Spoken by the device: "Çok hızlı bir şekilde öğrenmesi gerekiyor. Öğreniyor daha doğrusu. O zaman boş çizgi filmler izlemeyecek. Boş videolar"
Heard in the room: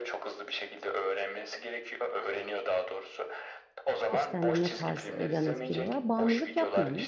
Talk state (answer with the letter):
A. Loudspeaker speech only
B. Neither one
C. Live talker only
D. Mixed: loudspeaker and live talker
D